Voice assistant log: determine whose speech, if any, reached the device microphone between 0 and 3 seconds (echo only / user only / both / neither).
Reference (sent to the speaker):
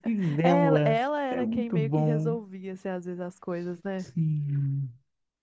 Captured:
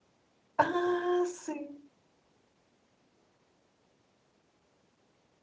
user only